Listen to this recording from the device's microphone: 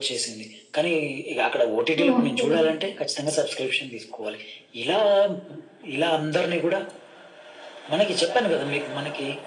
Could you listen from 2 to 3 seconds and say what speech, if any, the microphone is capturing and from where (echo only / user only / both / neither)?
both